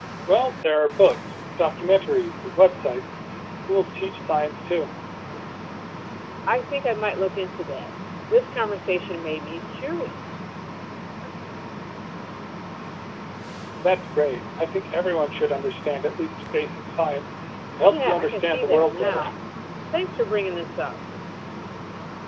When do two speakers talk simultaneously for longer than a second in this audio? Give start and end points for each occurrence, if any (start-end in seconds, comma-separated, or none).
17.9-19.2